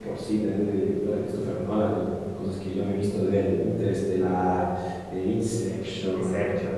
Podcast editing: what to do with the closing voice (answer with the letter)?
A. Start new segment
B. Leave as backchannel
B